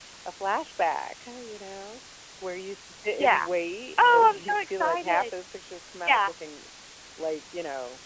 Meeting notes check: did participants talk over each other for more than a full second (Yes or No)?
Yes